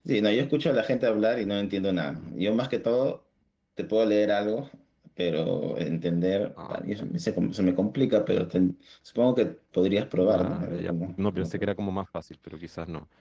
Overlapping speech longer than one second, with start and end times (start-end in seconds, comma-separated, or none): 10.1-11.7